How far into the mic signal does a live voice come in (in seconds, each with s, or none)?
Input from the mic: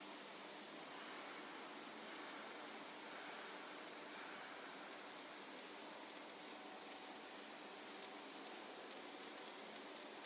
none